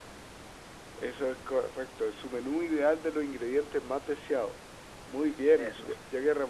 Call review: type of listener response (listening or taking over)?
listening